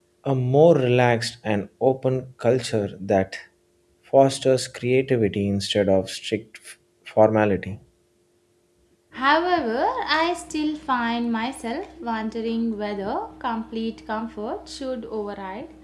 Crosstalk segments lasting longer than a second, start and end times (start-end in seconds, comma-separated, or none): none